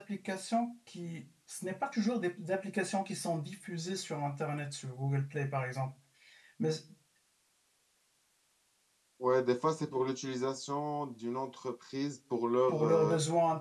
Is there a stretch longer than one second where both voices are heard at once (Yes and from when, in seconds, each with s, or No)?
No